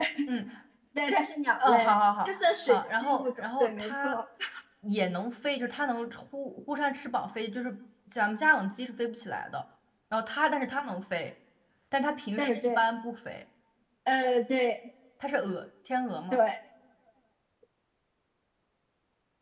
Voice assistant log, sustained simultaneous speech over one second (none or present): present